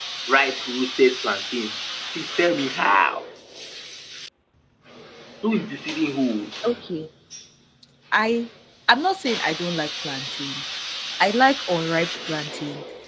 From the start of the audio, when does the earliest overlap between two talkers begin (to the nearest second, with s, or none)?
none